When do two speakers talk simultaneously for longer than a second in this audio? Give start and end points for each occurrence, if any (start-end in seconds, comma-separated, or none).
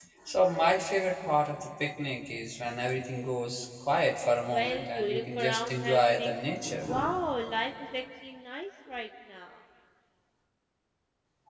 4.5-6.3